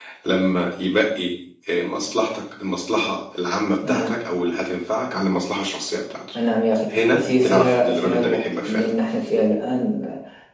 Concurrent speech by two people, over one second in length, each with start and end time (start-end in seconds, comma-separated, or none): 7.1-8.9